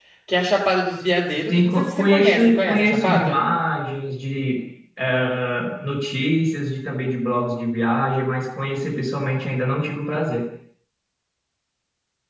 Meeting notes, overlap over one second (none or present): present